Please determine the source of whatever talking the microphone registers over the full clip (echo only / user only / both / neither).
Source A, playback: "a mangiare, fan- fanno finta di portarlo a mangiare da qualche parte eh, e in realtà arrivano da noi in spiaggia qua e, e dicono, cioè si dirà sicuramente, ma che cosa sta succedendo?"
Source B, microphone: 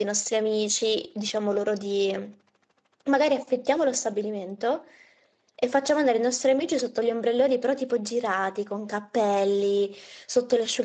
user only